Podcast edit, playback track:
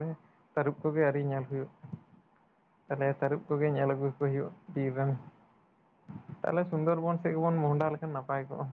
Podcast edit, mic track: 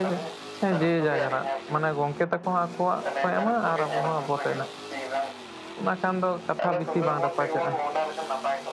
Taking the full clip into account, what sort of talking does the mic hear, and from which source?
both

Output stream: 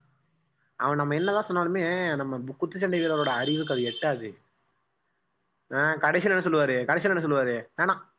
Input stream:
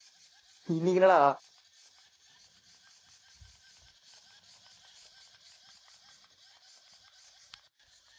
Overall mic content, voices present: user only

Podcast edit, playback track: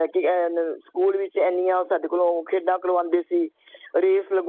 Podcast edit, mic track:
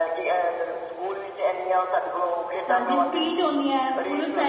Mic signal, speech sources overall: both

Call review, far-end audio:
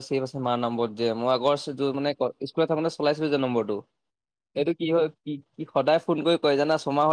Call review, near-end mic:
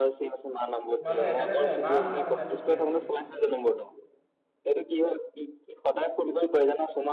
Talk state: both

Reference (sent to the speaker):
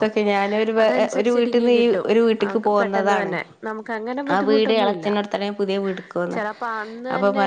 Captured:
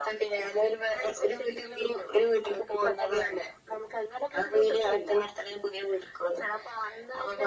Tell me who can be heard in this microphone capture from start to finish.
echo only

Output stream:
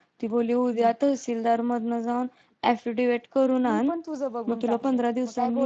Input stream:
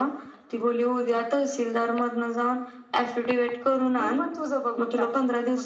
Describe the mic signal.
echo only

